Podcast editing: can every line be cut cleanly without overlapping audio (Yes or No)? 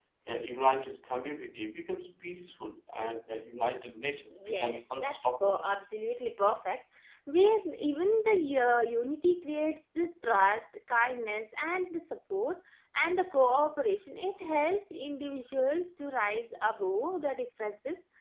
No